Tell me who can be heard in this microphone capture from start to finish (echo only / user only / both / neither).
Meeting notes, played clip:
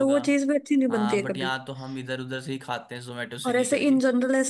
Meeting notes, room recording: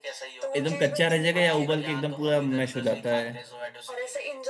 both